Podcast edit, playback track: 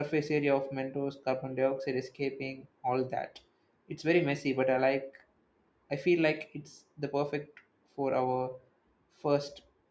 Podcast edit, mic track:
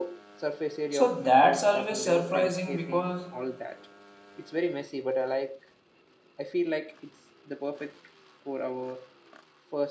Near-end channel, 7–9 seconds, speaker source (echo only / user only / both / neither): echo only